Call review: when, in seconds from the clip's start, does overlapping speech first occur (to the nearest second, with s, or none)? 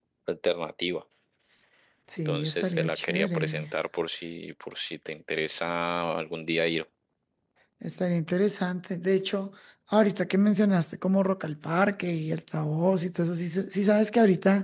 2 s